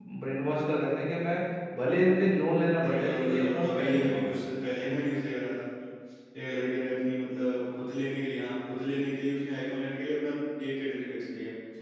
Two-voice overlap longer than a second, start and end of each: 2.8-4.3

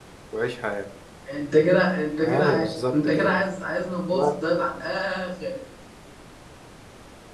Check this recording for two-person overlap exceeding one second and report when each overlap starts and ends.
2.2-3.5

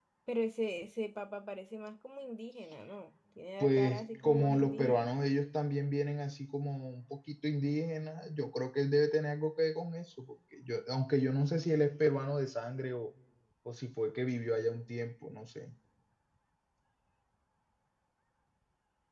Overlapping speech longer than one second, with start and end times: 3.6-5.0

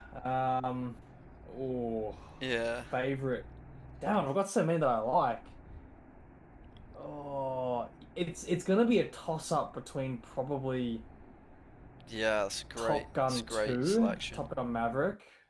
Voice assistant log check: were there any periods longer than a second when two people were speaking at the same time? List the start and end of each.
12.8-14.4

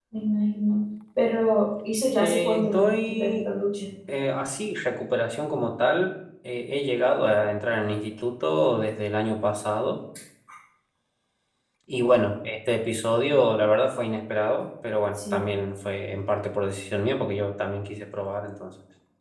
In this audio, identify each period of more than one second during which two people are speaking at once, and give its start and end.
2.2-3.5

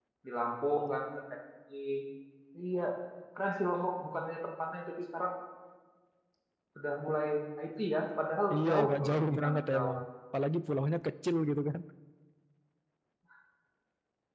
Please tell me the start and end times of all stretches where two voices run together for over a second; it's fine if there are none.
8.6-9.9

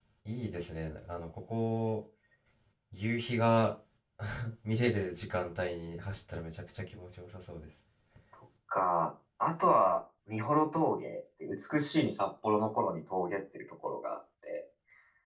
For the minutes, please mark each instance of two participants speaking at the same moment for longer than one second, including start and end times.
none

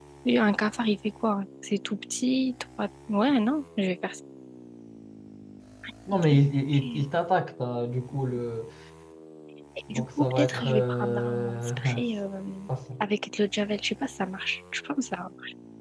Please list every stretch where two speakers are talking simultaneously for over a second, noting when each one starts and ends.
9.9-12.0

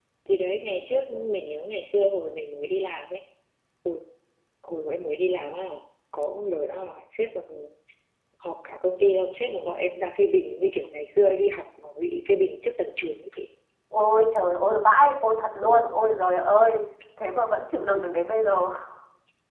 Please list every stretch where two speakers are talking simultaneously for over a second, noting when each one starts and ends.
none

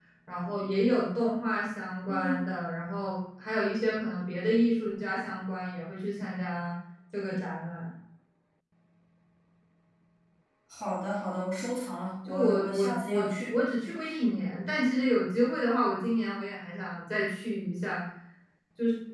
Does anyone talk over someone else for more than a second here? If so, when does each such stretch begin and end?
12.2-13.6

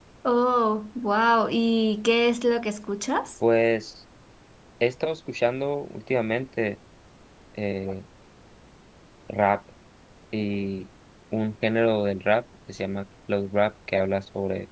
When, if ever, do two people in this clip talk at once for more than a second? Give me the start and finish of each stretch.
none

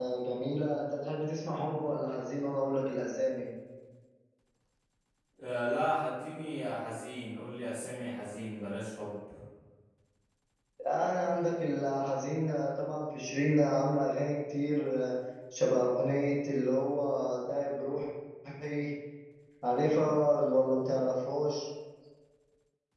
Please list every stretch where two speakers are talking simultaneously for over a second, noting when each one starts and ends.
none

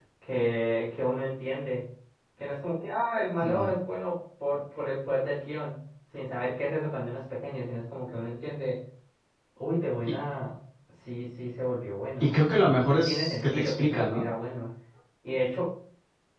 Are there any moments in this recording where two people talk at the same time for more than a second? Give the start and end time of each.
12.2-14.2

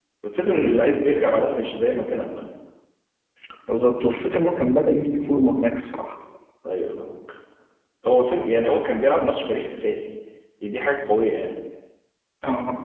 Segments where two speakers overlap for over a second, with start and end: none

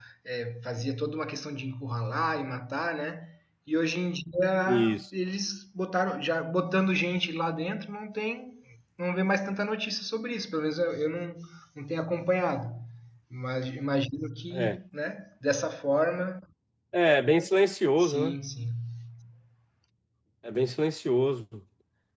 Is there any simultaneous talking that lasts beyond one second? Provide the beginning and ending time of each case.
none

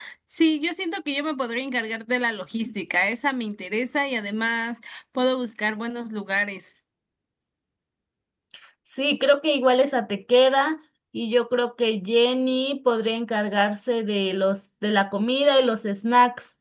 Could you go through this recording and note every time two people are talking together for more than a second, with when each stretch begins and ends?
none

